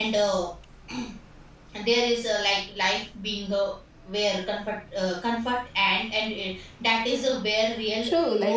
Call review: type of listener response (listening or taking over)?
taking over